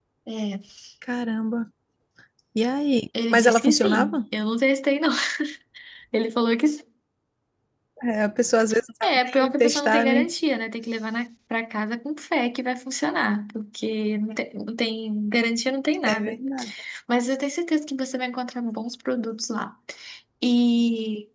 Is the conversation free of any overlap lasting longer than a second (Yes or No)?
No